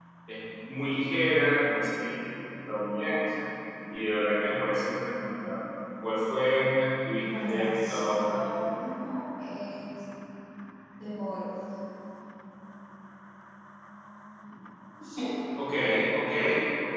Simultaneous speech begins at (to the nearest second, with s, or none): 7 s